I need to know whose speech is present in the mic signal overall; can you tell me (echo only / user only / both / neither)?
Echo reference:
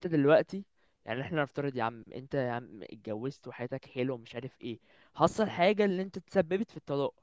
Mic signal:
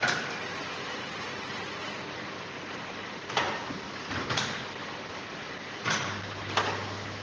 neither